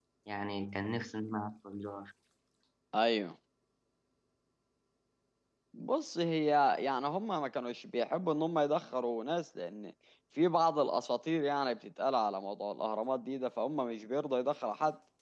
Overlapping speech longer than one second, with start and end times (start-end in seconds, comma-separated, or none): none